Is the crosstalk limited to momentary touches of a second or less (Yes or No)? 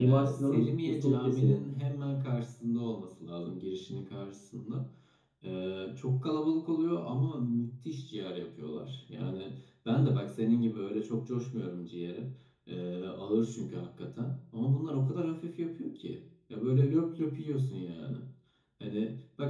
No